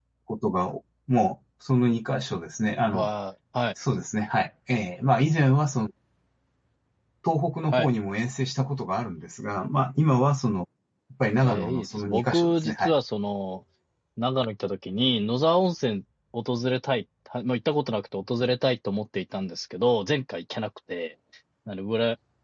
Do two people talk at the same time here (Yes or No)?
Yes